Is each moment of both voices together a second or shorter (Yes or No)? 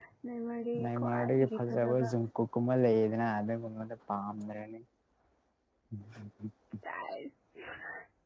No